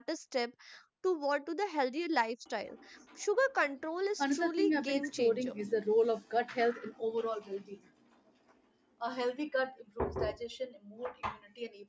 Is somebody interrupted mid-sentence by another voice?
Yes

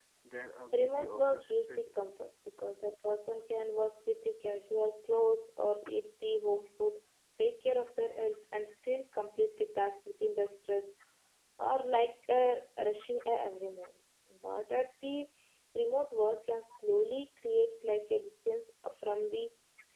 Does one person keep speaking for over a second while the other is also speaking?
Yes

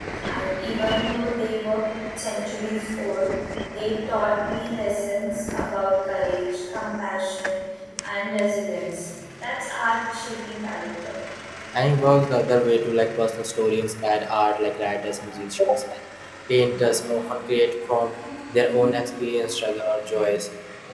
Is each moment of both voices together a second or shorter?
Yes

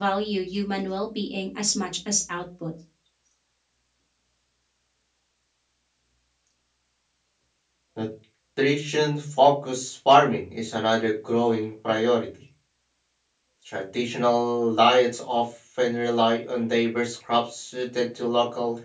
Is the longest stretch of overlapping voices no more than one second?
Yes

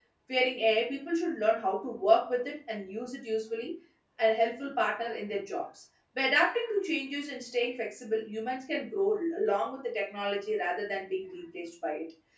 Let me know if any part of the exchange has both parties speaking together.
No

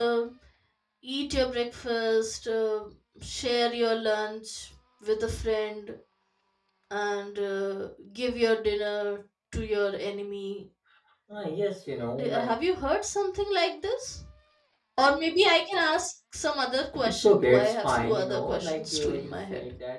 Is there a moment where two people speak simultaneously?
Yes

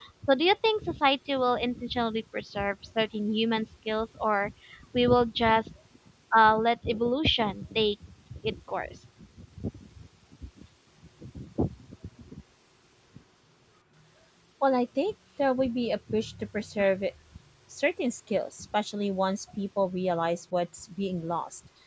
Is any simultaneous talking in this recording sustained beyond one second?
No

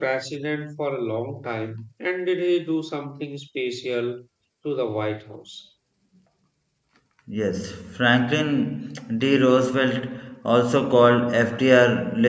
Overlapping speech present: No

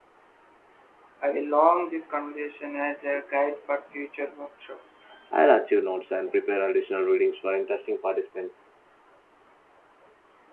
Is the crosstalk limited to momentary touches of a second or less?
Yes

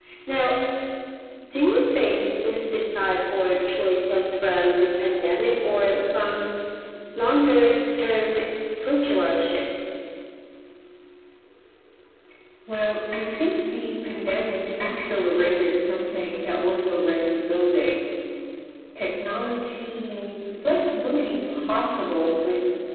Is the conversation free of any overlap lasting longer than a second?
Yes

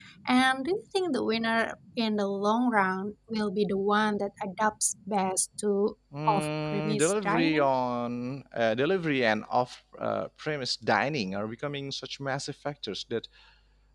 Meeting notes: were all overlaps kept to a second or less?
No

